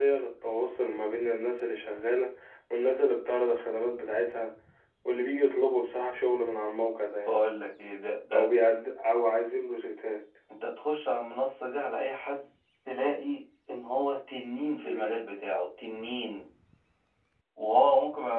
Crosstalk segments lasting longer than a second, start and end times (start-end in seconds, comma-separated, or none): none